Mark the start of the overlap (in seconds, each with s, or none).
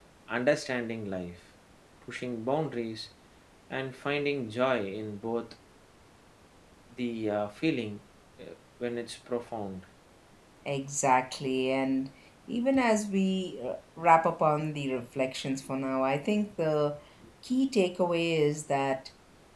none